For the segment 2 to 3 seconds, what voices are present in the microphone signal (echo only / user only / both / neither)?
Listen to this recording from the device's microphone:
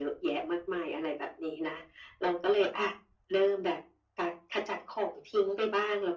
echo only